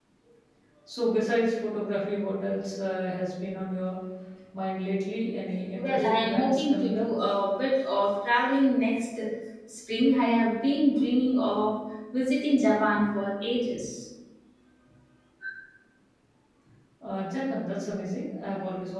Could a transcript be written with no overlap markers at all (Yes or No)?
No